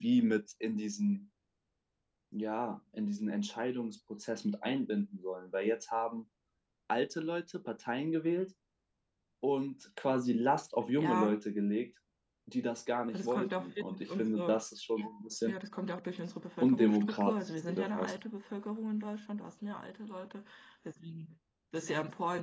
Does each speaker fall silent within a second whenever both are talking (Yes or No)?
No